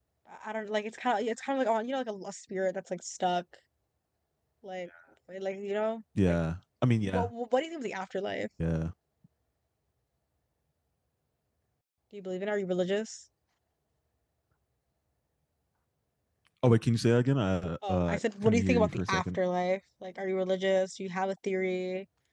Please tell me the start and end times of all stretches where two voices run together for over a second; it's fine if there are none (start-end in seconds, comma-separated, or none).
17.9-19.4